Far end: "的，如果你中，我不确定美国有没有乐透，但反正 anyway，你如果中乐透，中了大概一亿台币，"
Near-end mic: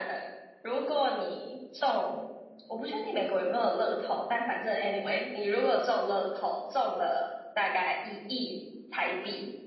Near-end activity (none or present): none